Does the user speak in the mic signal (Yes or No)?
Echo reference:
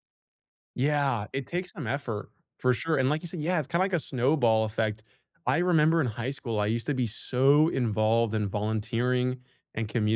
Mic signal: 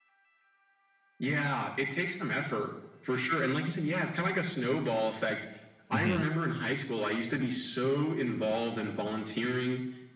Yes